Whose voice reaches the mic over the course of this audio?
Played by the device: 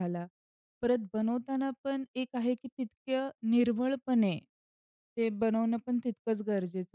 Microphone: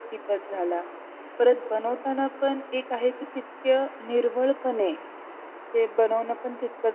echo only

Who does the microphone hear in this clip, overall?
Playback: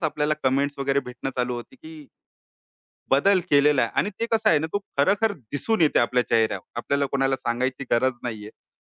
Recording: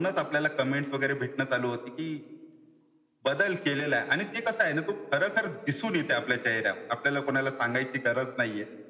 echo only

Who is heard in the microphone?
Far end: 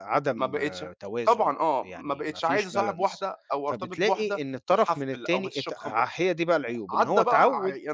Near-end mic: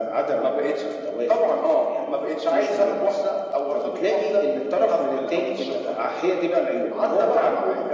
echo only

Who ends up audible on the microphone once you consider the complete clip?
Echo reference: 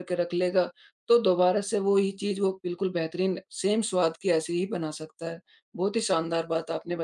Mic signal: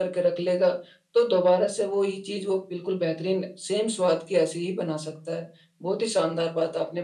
echo only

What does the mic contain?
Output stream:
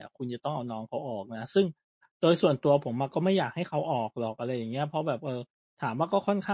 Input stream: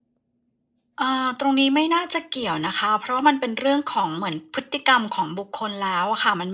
user only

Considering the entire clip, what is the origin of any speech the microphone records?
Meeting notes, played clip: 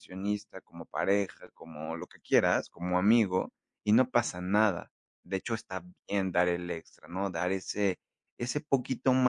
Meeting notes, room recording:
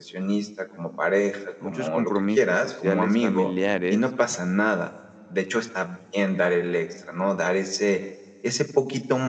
both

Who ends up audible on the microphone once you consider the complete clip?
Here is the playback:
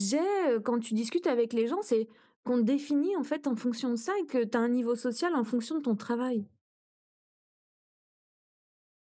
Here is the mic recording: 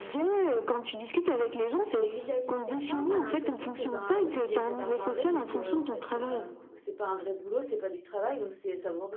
both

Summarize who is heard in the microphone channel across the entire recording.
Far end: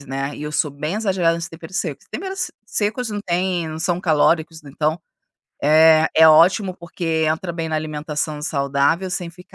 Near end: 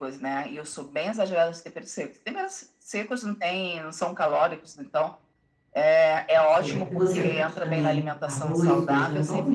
both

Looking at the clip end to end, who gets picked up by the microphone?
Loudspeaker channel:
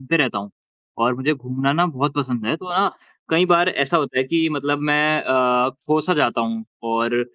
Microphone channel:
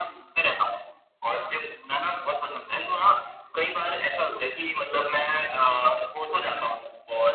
echo only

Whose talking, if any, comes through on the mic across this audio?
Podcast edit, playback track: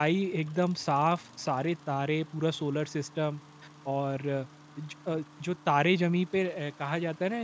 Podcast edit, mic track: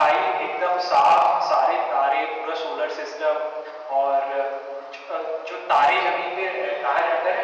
echo only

